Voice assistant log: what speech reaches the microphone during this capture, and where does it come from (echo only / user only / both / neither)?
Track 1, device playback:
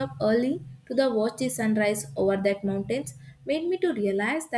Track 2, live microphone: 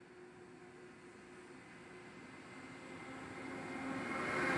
neither